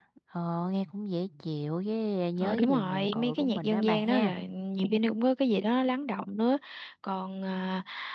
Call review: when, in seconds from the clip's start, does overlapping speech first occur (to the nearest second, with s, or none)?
2 s